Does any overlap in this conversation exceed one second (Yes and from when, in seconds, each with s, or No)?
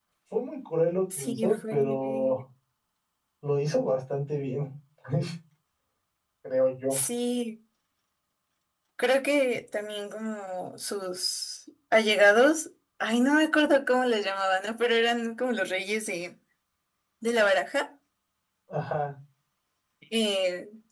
Yes, from 1.2 s